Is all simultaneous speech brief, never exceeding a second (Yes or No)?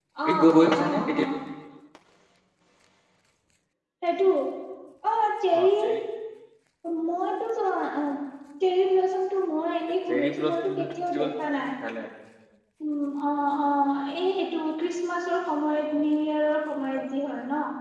No